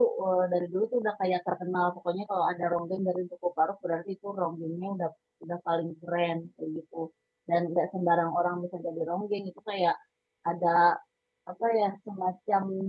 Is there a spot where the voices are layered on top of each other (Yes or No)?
No